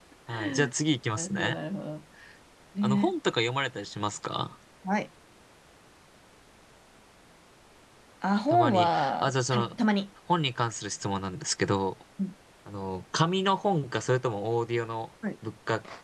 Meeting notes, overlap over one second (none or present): present